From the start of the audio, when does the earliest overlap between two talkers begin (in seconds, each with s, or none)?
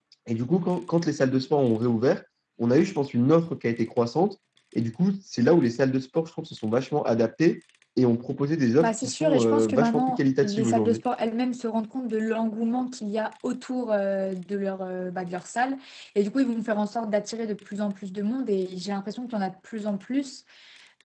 8.8 s